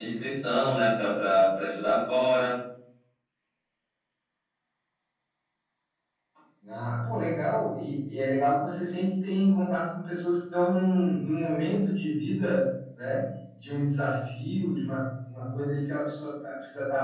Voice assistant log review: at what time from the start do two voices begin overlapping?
none

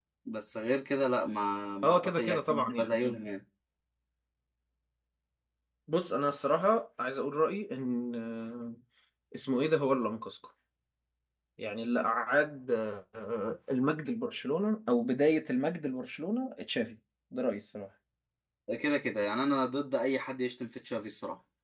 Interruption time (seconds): 1.8 s

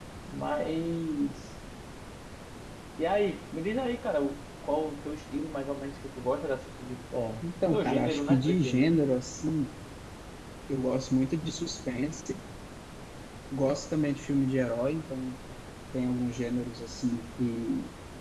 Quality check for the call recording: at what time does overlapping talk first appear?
7.7 s

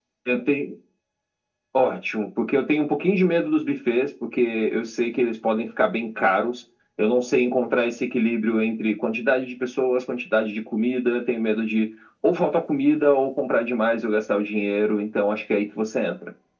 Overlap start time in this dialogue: none

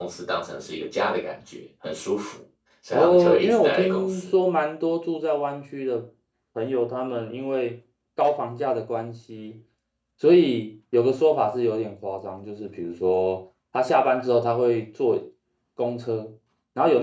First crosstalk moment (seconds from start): 2.9 s

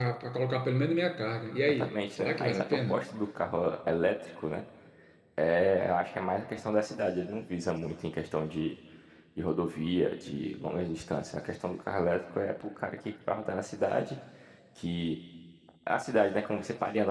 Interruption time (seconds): 1.8 s

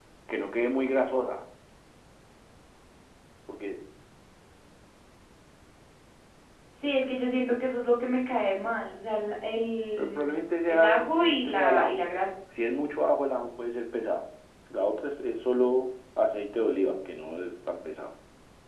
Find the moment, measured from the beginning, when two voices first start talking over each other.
10.0 s

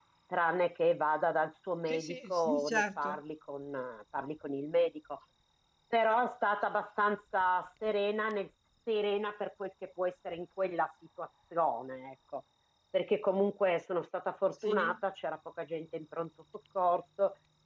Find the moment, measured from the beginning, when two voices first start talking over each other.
1.9 s

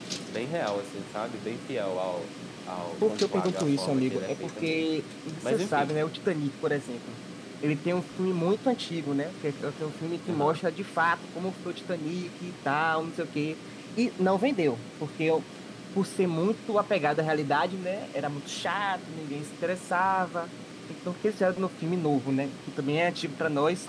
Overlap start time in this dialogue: 3.0 s

